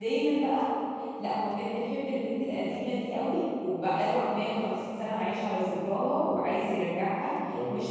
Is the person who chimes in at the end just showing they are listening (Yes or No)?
Yes